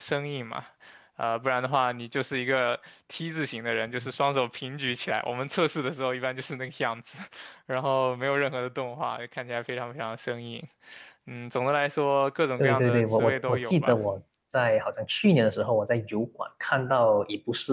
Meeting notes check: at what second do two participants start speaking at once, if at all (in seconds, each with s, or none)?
12.6 s